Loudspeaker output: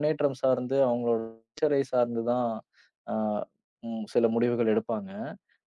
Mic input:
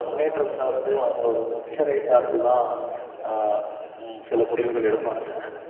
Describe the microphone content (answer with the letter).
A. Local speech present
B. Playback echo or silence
A